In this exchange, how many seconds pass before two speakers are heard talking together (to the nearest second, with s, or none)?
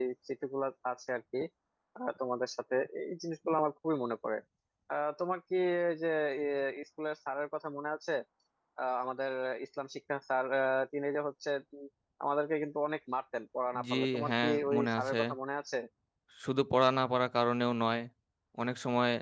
14 s